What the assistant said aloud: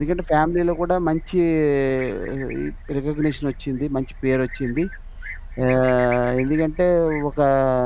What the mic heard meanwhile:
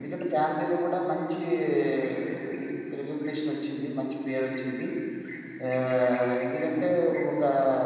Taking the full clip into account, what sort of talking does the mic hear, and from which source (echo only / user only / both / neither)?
echo only